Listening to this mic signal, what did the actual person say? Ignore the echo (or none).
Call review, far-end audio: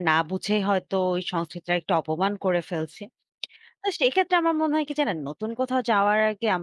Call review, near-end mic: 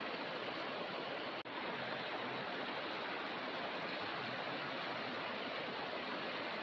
none